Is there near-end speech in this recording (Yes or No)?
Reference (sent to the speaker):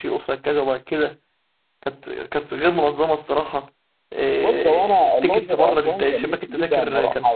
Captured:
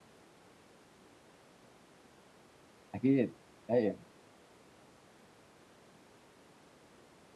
Yes